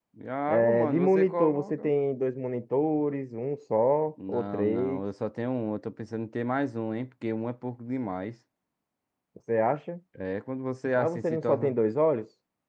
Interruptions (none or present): present